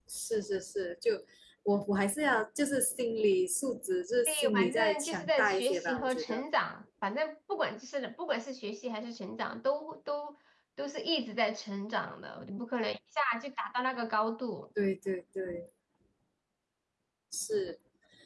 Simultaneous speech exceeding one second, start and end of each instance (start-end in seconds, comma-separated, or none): 4.3-6.4